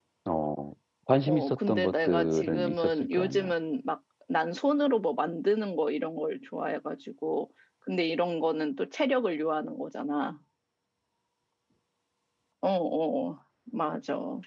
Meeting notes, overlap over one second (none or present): present